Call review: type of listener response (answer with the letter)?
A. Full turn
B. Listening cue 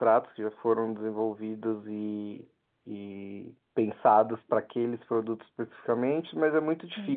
B